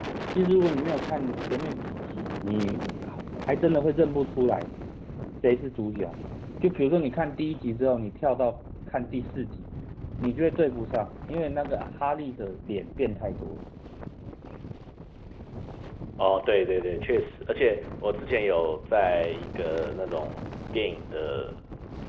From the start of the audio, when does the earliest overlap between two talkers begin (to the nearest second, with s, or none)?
none